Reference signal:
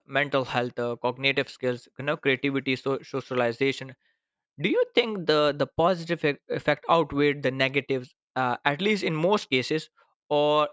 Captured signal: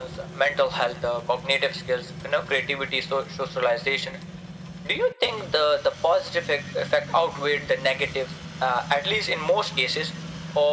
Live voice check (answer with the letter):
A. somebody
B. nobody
B